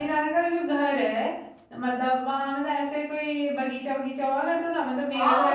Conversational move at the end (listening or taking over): taking over